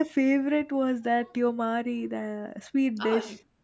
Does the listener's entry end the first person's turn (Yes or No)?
Yes